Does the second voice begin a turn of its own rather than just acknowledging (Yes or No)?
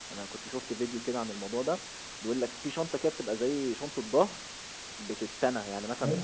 No